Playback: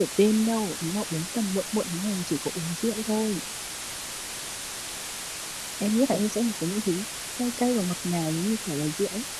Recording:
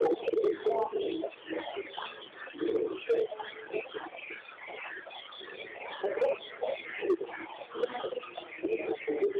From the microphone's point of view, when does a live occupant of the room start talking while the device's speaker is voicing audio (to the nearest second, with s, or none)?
none